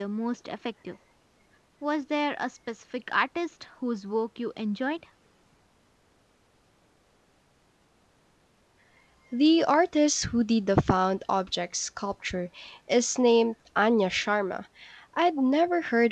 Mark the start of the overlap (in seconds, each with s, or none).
none